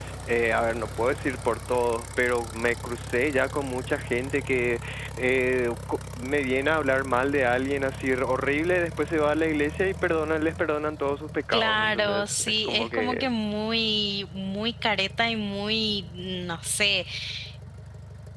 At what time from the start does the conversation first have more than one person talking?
11.5 s

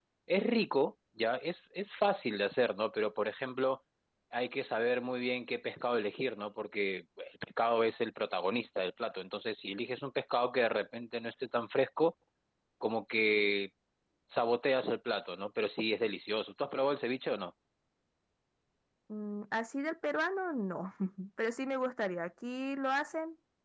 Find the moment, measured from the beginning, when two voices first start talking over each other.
none

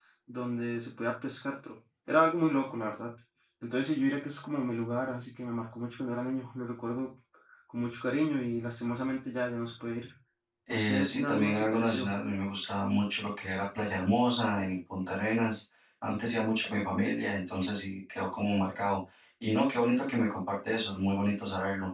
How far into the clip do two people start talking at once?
10.7 s

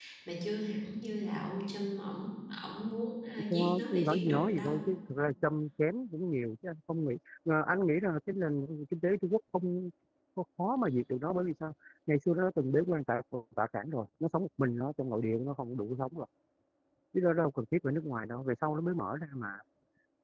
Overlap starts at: 3.5 s

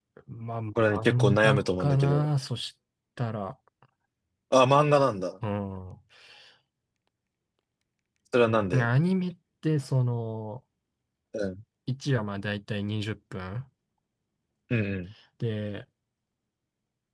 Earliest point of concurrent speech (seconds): 0.8 s

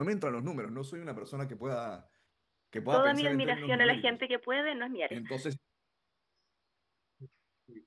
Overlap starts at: 2.9 s

